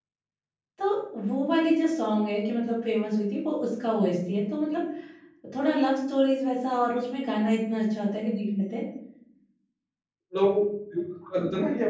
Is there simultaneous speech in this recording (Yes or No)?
No